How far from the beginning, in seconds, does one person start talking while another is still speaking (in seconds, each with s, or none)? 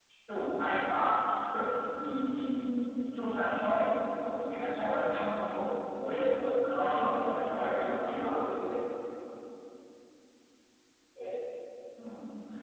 6.7 s